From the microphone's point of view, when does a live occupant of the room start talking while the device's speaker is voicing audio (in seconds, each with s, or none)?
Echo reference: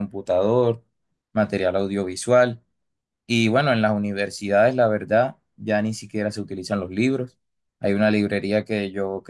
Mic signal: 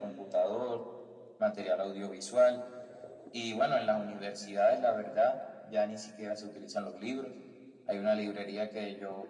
none